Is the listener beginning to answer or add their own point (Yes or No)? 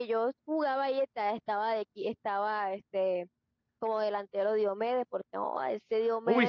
Yes